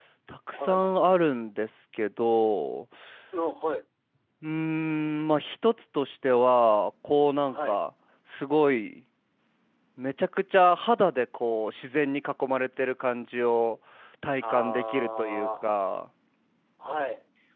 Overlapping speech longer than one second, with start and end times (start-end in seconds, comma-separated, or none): 14.4-15.6